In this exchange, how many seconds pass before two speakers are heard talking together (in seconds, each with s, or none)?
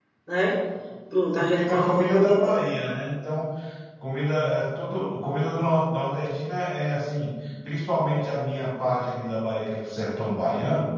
1.3 s